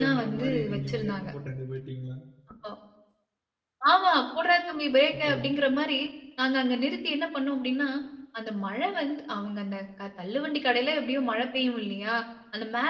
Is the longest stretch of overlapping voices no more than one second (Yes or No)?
No